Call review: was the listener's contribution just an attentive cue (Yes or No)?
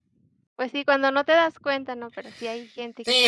No